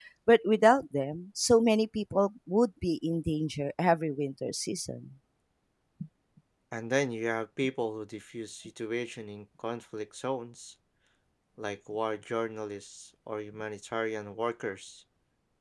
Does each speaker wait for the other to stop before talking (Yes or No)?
Yes